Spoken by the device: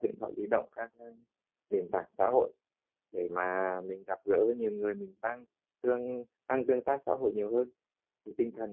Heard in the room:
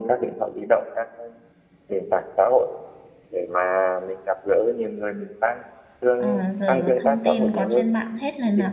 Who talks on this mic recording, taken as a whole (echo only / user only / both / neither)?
both